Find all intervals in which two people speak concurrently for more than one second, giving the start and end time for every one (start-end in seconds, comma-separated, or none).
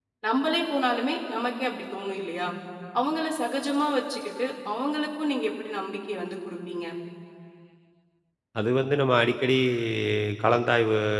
none